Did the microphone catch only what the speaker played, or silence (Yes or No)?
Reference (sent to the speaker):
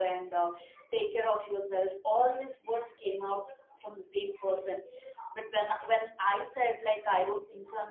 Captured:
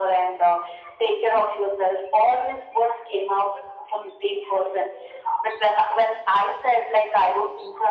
Yes